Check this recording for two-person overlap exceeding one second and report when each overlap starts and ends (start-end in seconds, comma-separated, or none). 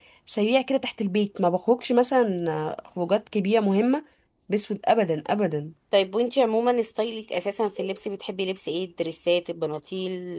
none